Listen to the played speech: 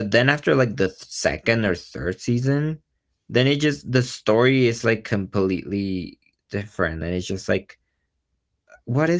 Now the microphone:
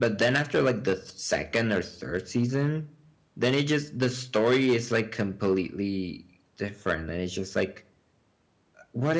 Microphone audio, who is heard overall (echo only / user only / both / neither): echo only